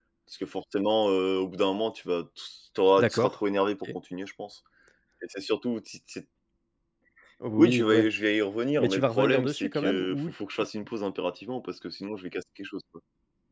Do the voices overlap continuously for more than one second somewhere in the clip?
Yes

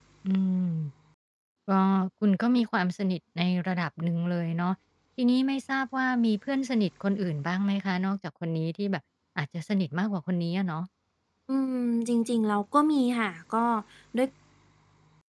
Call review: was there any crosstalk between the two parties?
No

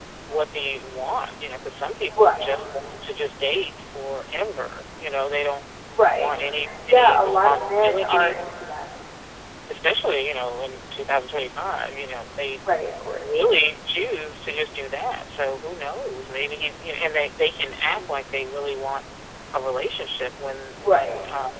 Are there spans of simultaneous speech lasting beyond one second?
Yes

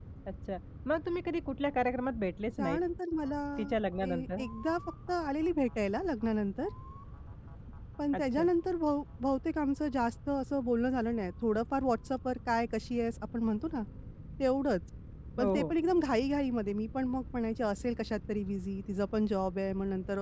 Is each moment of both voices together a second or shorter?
Yes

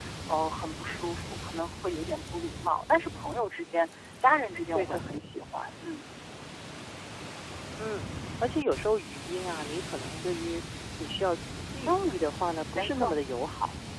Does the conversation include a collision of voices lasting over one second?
No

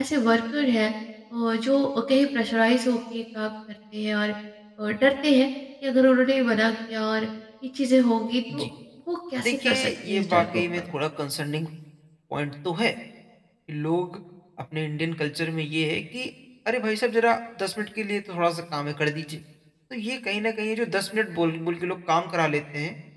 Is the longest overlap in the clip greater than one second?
Yes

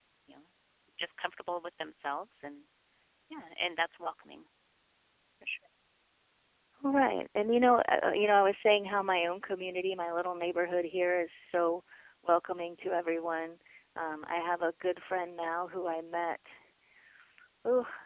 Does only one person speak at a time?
Yes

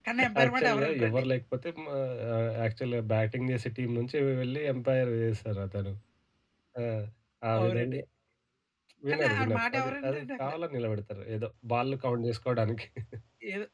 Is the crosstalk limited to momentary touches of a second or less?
No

